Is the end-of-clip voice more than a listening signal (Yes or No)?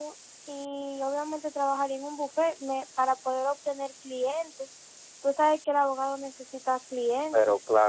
Yes